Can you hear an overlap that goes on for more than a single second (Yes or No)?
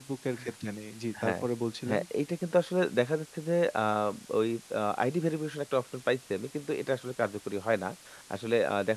No